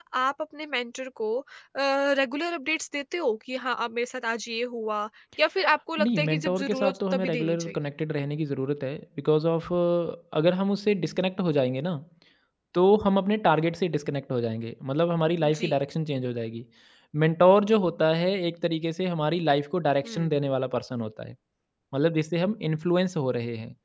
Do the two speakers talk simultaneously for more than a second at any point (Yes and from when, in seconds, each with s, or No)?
Yes, from 6.0 s